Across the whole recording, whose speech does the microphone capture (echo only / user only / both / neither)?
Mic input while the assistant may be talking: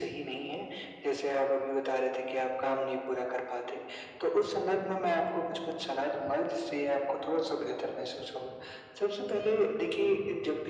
echo only